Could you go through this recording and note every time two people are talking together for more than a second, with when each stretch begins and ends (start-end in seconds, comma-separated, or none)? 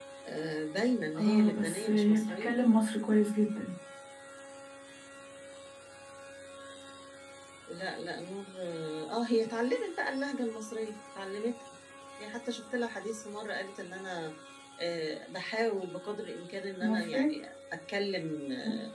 1.2-2.6